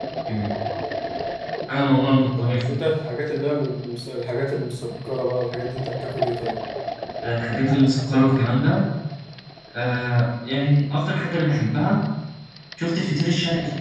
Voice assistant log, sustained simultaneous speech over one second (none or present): none